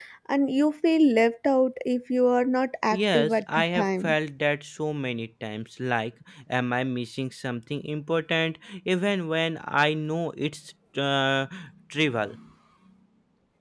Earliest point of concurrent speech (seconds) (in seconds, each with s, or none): 2.9 s